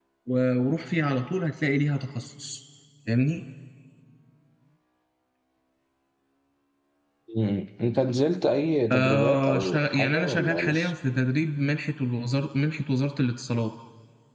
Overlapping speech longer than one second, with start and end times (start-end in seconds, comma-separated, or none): 8.9-10.9